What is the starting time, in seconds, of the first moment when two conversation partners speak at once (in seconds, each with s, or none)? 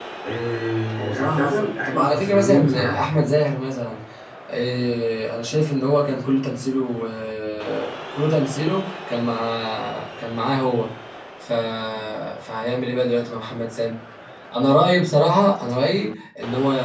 1.0 s